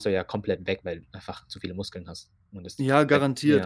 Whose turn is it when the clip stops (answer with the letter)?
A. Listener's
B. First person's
A